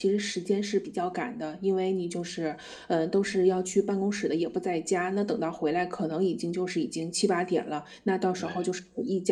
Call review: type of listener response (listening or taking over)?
listening